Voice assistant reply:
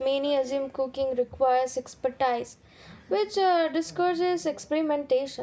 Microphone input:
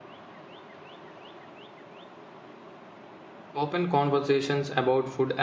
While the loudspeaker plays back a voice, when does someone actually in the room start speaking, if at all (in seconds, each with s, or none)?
3.5 s